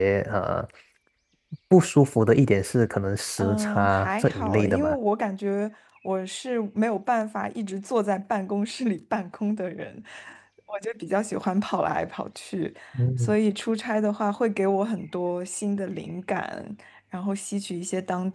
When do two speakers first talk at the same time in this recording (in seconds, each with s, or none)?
3.4 s